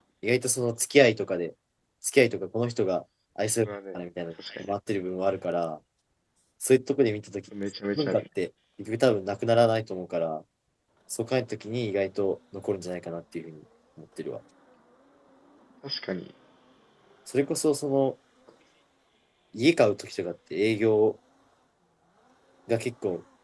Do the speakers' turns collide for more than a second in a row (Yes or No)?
No